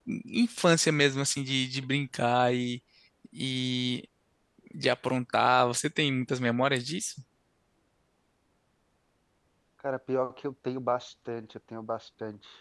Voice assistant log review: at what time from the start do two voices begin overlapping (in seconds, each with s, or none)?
none